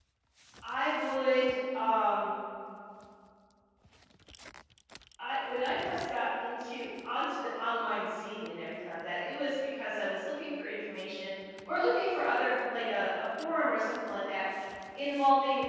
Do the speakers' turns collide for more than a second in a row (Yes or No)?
No